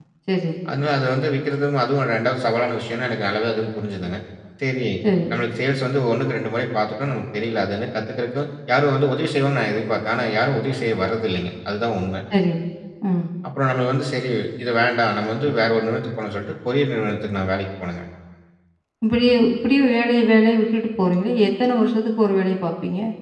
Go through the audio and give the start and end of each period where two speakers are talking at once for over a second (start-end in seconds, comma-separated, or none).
none